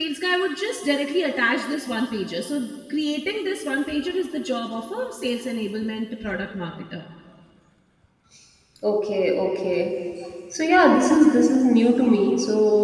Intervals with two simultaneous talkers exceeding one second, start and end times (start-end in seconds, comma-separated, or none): none